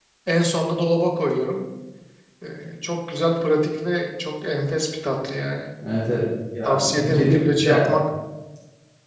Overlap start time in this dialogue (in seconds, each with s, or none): 6.6 s